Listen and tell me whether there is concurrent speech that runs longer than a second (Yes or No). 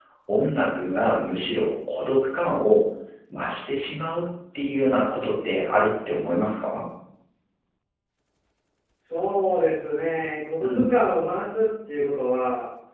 No